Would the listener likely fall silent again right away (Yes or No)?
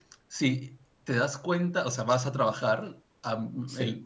Yes